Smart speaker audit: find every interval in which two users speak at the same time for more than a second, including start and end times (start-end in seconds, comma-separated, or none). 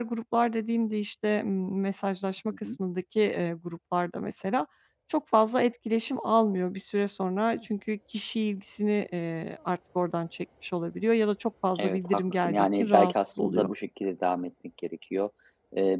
11.8-13.7